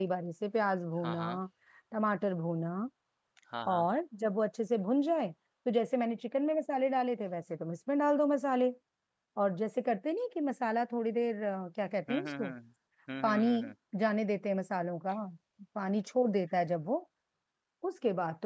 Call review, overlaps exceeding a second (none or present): none